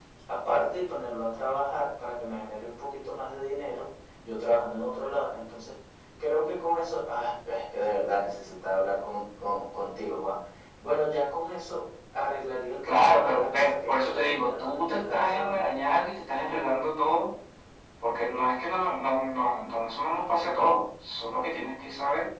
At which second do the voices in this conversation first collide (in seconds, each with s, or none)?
12.8 s